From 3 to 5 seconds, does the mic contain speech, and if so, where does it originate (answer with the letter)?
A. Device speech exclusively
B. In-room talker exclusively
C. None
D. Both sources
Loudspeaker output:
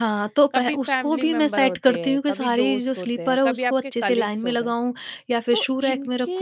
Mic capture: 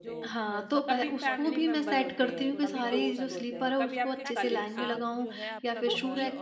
D